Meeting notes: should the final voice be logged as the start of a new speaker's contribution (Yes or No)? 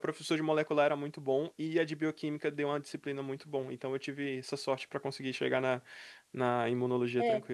Yes